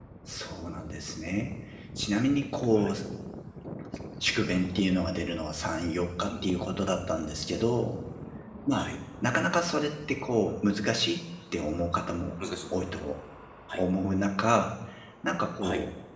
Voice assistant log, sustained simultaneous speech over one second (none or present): none